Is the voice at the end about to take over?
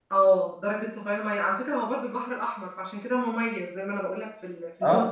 Yes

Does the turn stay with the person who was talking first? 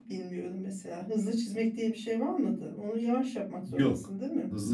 No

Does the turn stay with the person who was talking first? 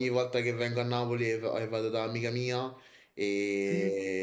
Yes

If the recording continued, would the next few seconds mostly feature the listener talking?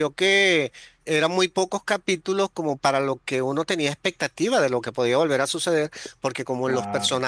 No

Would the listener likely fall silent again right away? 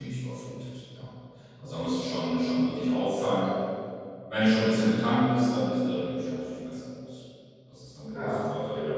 Yes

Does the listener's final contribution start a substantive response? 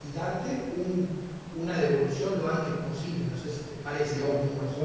Yes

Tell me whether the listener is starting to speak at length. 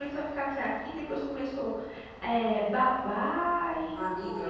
Yes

